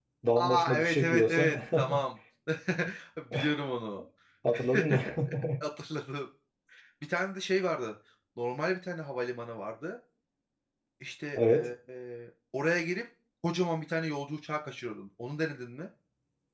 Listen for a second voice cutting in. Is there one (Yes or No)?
Yes